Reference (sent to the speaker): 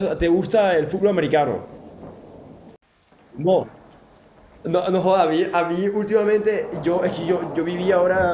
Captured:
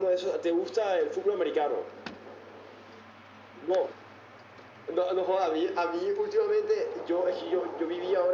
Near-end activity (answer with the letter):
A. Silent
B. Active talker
A